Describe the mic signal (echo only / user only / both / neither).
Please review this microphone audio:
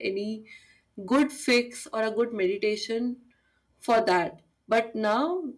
user only